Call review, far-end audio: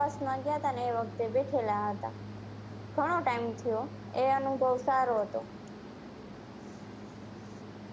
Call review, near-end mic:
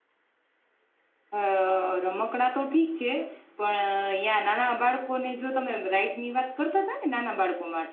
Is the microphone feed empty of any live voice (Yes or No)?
No